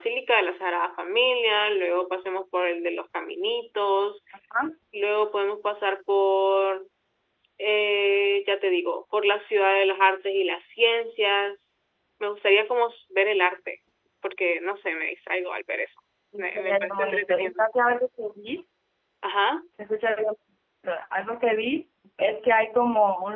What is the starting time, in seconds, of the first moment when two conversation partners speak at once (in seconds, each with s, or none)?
16.4 s